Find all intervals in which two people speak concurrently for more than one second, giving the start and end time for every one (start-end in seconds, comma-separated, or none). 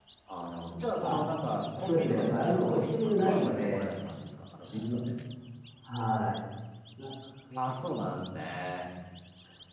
1.8-3.9